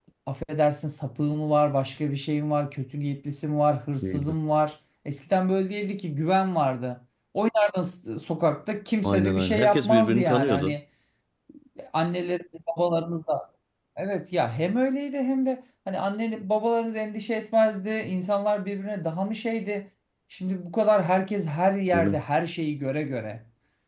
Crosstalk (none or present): present